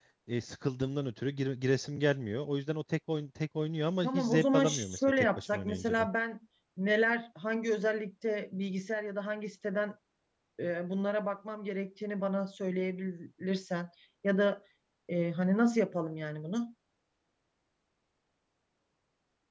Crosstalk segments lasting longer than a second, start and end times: 4.0-6.1

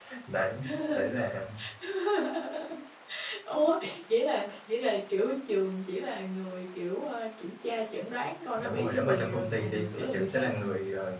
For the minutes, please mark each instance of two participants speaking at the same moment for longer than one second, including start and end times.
8.6-10.6

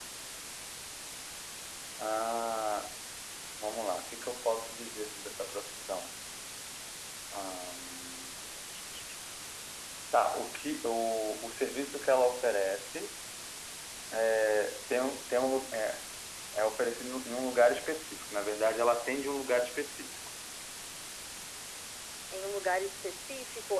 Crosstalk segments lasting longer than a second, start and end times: none

